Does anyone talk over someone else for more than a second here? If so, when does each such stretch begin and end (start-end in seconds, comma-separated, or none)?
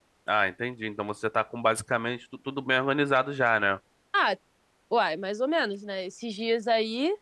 none